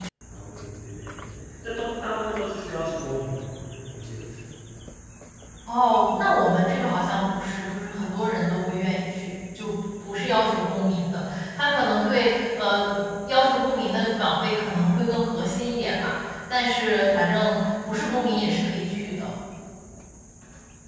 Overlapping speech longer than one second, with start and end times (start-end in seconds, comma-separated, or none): none